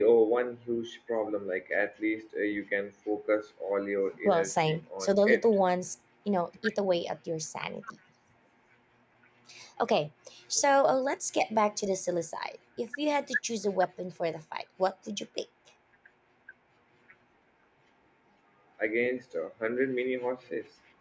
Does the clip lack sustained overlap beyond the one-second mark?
No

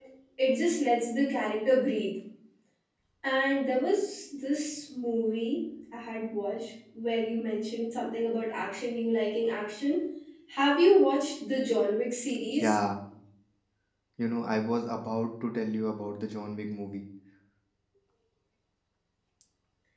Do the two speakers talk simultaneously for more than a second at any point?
No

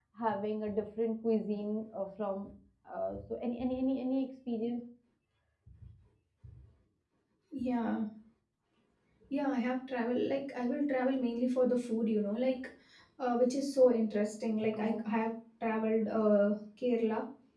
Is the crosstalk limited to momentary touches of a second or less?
Yes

